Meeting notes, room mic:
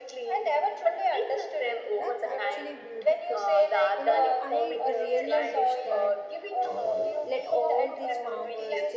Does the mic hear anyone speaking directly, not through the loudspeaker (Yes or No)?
Yes